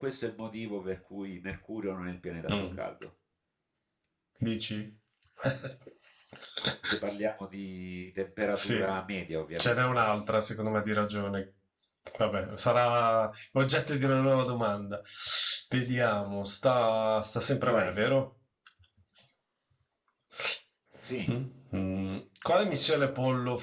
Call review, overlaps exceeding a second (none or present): none